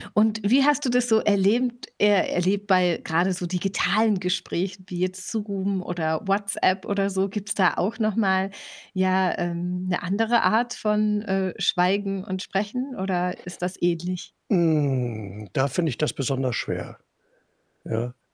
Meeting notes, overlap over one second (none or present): none